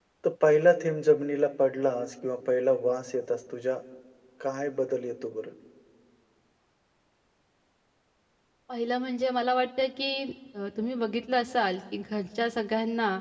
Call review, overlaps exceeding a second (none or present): none